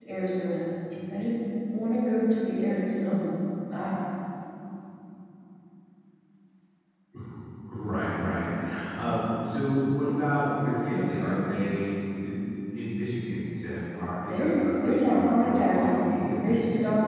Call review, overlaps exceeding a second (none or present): present